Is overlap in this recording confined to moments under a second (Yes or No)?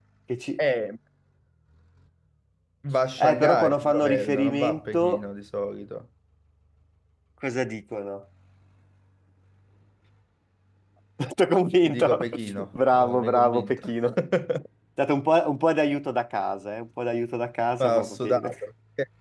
No